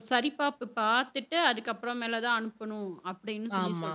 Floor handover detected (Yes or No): Yes